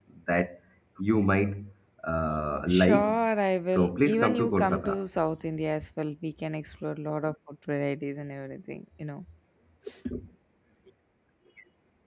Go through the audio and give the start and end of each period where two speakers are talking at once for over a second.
3.8-5.0

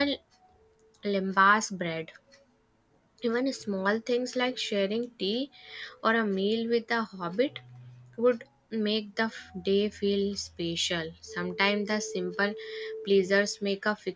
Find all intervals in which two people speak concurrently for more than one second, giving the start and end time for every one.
none

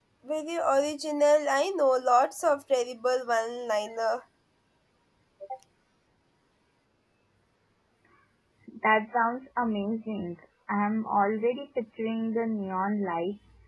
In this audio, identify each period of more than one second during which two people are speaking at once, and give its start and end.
none

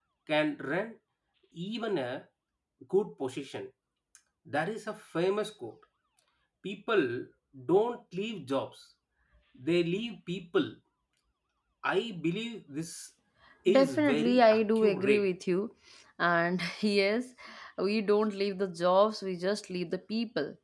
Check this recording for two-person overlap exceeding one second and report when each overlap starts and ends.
13.7-15.3

